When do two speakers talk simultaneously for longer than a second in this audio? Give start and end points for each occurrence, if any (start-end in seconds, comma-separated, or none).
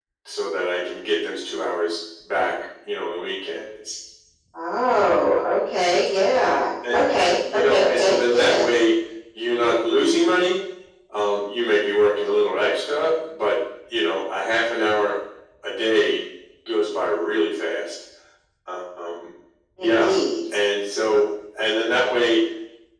7.5-8.8